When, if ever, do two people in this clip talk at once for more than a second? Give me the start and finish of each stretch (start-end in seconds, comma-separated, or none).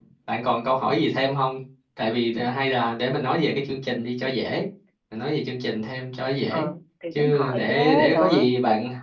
7.1-8.4